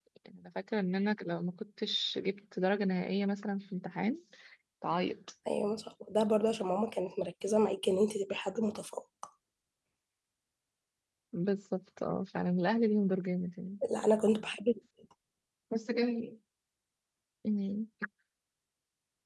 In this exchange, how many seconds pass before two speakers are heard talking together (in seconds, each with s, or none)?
none